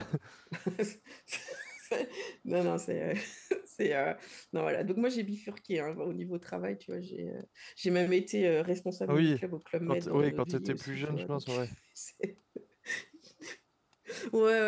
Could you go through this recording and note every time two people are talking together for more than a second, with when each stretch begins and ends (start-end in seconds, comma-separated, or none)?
9.9-11.5